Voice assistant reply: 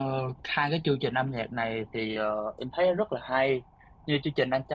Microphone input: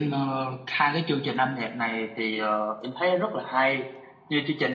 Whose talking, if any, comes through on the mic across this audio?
echo only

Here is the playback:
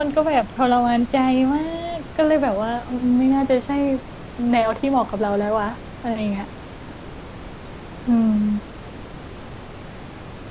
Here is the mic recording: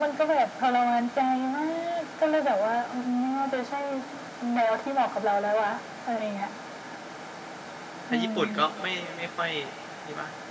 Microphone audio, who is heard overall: both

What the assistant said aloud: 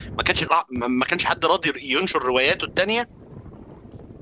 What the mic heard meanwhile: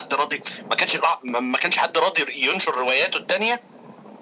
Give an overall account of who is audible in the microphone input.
echo only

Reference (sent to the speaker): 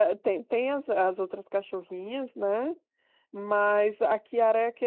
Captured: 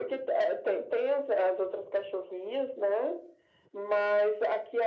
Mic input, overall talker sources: echo only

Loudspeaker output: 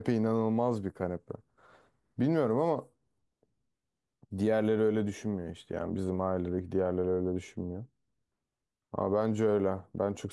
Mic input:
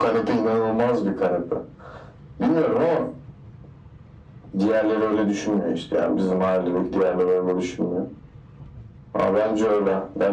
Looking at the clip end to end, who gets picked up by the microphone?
echo only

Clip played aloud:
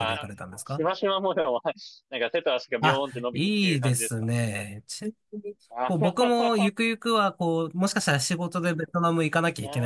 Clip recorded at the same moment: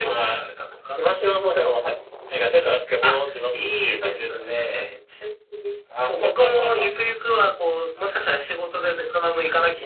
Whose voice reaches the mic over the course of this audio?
echo only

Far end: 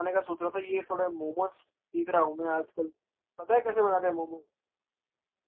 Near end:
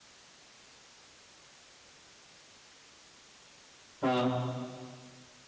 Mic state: user only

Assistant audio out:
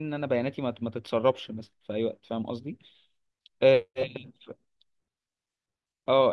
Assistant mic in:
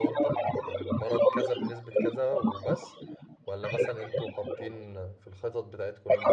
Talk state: both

